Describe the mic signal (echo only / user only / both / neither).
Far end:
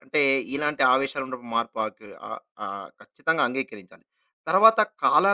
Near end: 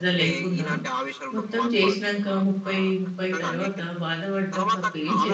both